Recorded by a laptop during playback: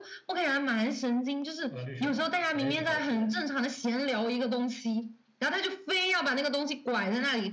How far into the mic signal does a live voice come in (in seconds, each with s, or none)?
1.7 s